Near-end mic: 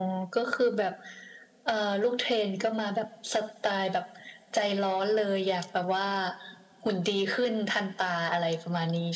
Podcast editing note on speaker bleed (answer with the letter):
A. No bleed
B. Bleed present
B